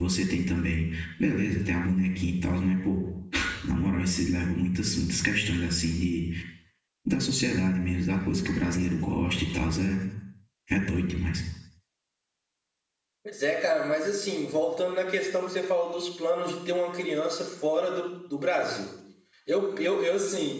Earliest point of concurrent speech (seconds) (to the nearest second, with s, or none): none